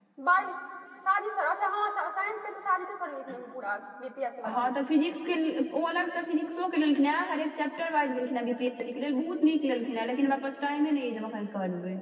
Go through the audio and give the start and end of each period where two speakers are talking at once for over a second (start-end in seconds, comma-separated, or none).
none